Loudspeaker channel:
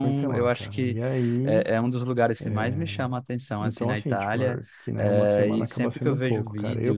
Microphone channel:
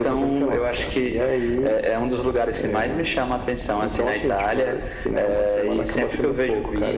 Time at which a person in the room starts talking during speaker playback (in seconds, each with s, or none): none